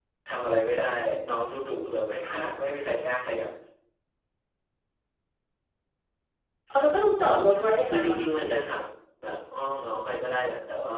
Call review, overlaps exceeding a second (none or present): present